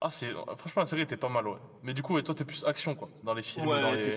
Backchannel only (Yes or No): No